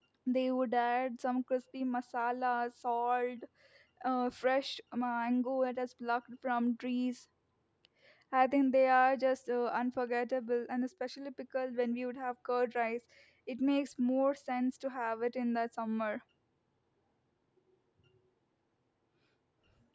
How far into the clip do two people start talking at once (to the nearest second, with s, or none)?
none